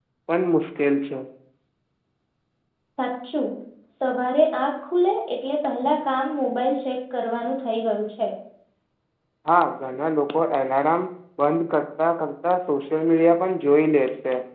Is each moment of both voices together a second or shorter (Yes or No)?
Yes